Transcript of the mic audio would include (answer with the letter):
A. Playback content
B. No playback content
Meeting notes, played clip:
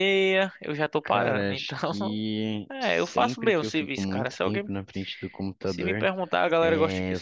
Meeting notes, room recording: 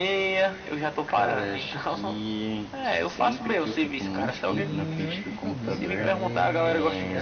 A